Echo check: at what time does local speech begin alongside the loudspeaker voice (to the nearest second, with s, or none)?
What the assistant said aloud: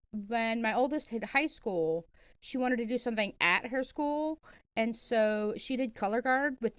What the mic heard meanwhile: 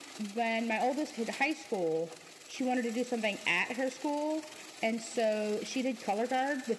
none